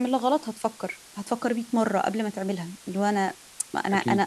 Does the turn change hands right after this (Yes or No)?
No